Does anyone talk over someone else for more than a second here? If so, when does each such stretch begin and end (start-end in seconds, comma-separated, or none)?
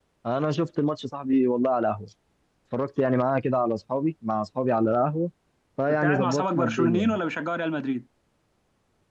5.9-7.2